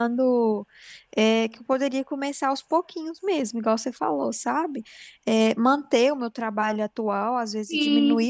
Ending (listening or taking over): listening